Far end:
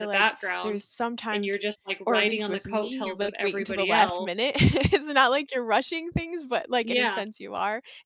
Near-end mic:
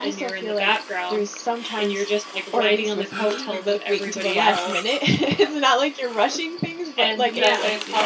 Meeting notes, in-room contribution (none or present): present